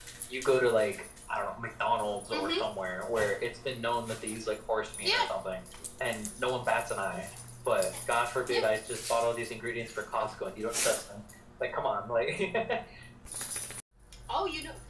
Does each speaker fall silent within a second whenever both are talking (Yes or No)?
Yes